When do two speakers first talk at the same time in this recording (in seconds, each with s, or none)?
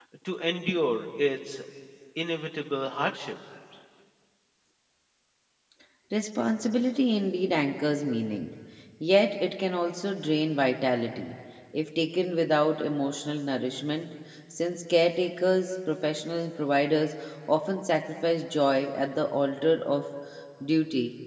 none